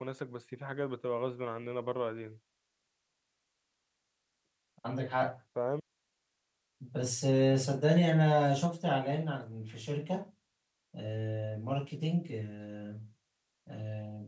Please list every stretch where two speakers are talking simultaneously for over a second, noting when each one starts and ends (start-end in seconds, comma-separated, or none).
none